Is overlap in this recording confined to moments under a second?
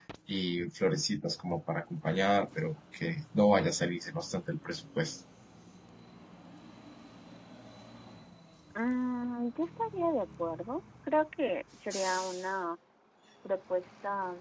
Yes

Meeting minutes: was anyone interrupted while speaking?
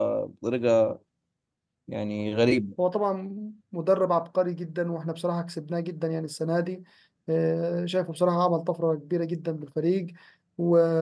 No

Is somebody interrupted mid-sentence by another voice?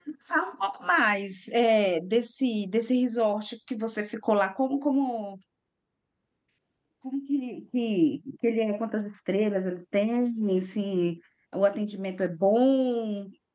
No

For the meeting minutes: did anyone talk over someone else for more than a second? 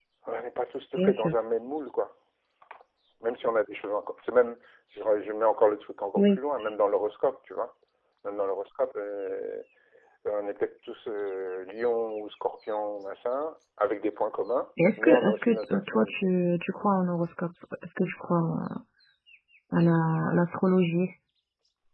Yes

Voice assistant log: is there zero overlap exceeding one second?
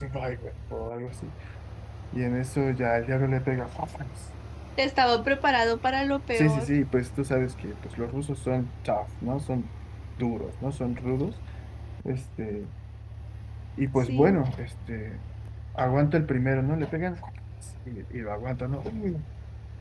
Yes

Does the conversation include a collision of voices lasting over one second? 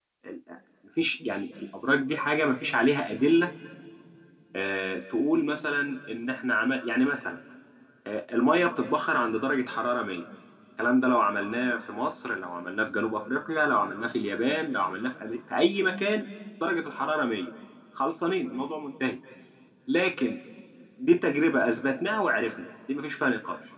No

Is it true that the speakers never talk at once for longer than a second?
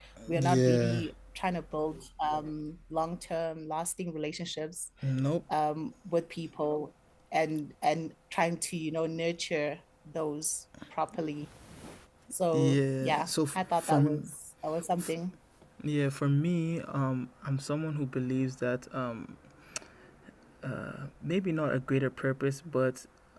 No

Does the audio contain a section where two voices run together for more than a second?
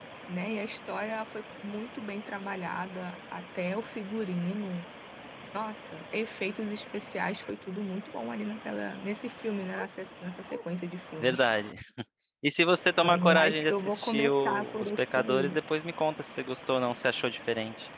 Yes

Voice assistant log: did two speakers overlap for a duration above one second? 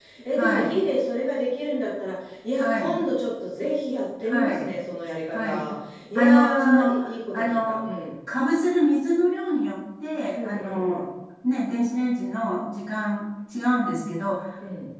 Yes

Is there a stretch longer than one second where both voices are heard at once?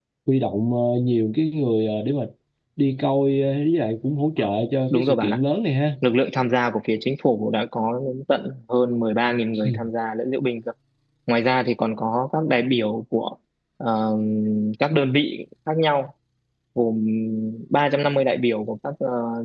No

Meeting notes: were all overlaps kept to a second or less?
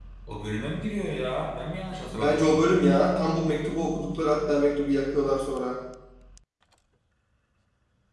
Yes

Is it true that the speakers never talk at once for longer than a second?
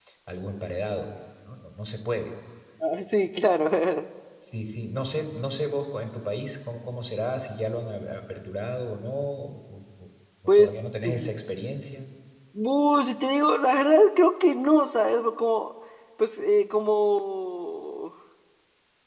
Yes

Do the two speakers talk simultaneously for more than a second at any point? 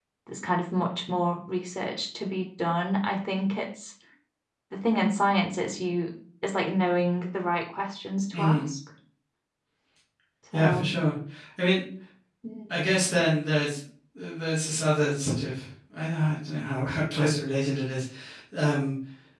No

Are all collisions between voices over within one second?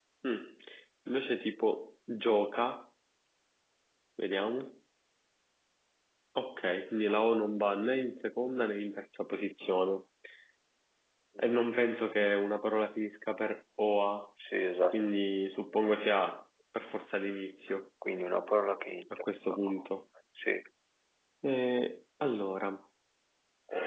Yes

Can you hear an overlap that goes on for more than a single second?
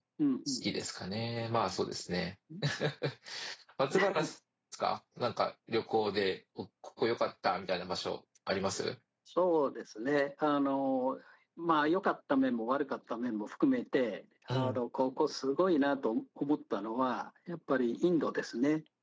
No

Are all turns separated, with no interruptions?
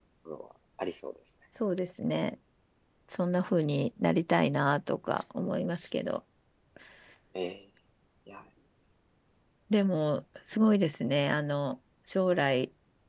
Yes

